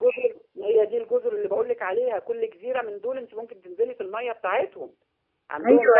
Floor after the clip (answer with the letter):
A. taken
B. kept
A